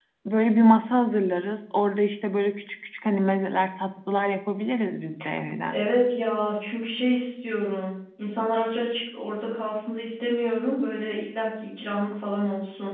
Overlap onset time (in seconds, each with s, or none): none